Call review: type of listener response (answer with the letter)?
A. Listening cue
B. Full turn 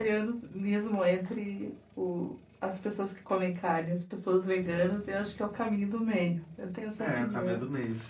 B